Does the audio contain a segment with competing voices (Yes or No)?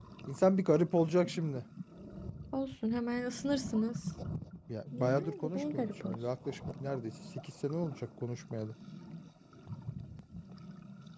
Yes